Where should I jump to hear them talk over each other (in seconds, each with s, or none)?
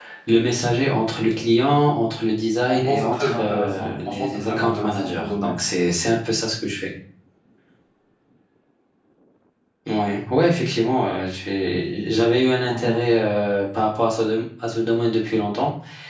2.7 s